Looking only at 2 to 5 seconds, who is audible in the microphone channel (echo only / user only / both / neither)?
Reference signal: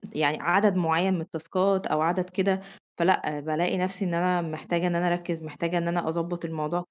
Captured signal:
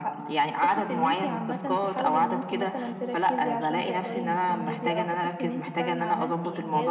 both